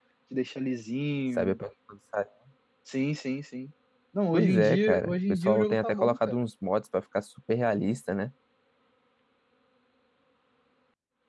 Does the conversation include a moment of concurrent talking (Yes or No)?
Yes